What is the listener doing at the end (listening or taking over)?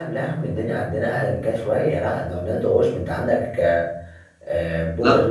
listening